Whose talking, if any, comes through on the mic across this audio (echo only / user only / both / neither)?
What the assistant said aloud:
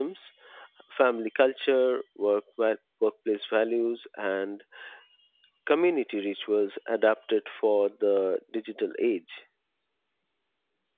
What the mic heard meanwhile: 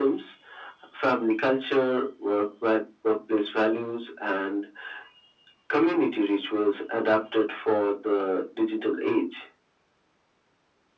echo only